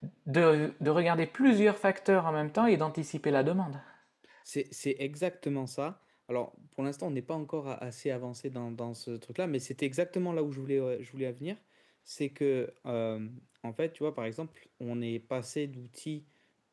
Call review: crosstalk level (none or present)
none